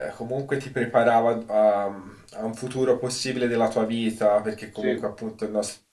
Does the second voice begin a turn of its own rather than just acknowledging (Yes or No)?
No